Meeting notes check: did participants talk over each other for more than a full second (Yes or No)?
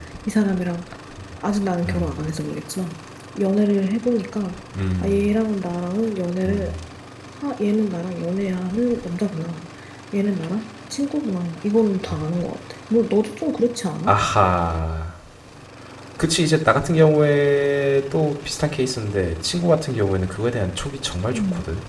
No